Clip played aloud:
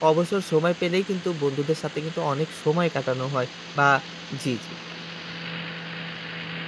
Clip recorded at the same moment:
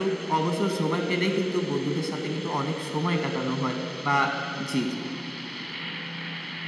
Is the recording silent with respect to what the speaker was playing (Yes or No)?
No